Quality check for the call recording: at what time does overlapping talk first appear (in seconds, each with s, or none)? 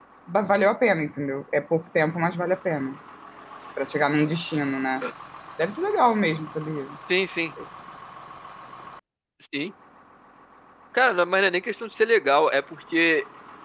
none